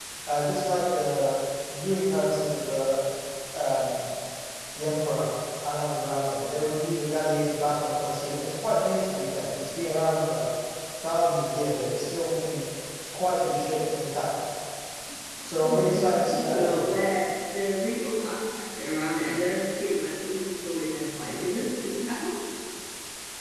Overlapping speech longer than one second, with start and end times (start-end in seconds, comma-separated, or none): 15.4-16.9